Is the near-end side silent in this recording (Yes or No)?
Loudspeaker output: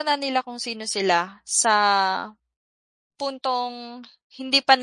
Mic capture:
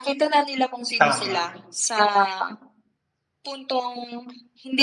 No